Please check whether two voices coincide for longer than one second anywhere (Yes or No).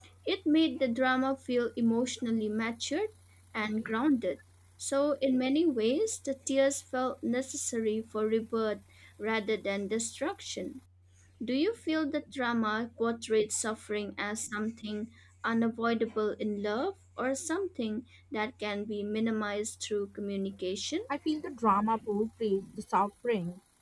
No